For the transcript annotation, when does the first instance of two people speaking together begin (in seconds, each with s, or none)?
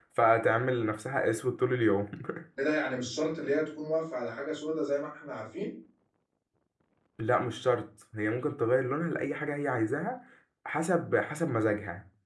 none